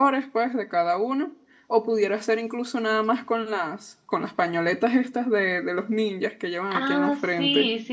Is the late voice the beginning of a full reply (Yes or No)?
Yes